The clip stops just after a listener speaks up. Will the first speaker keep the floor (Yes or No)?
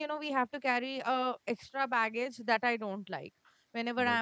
Yes